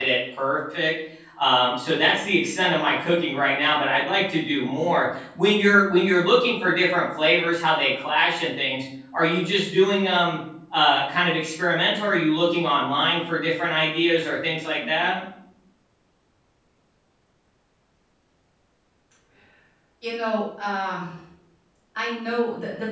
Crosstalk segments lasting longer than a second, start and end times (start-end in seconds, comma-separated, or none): none